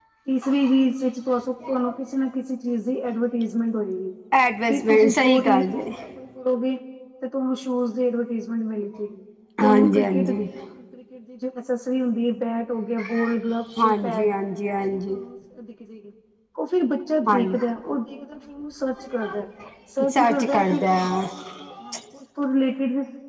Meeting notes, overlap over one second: present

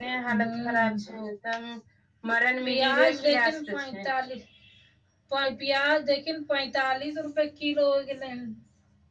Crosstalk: present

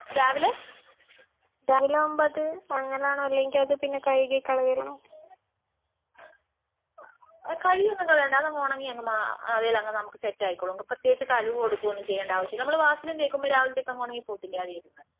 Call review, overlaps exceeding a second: none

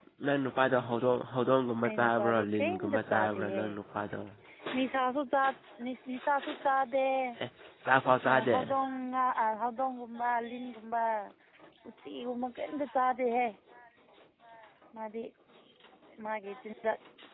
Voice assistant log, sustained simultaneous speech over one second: present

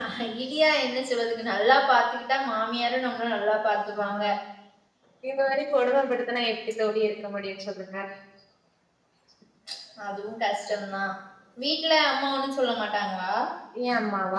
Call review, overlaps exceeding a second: none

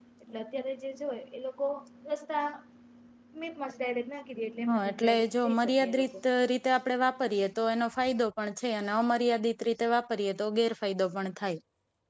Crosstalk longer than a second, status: present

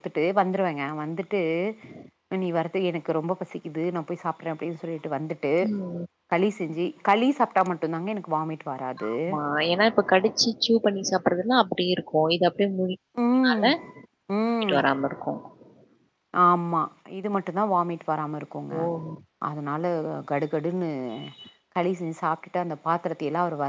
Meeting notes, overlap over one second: none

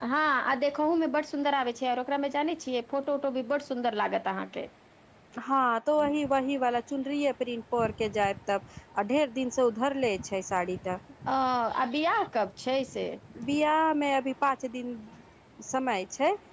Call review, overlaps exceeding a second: none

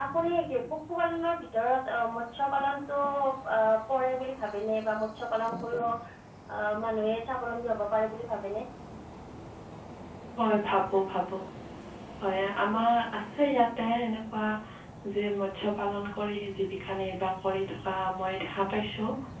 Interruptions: none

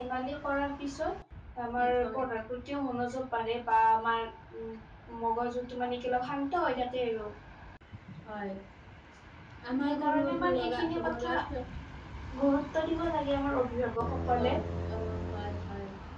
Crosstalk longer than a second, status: present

